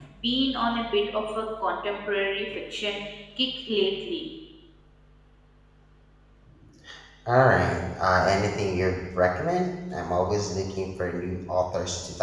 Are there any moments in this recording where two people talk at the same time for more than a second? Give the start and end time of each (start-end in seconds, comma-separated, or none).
none